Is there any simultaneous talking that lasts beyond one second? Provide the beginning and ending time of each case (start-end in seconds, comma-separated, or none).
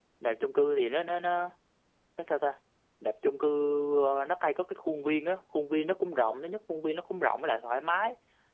none